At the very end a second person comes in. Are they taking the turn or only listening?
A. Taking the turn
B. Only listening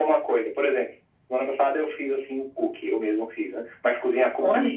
B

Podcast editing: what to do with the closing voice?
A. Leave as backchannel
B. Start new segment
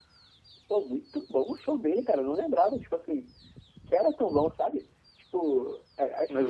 B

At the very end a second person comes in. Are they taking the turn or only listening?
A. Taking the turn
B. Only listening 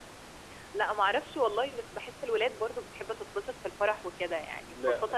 B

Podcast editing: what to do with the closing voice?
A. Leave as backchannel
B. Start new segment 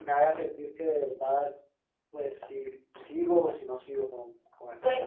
B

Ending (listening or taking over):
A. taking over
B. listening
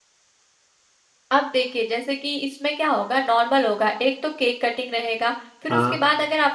B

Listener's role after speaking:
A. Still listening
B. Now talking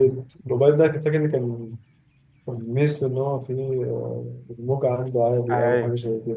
B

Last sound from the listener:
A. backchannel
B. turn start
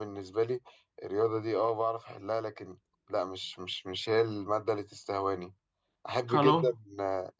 A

